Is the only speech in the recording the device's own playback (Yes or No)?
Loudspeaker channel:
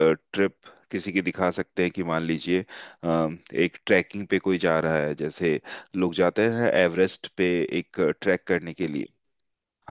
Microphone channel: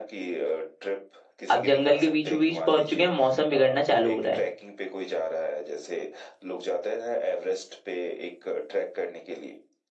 No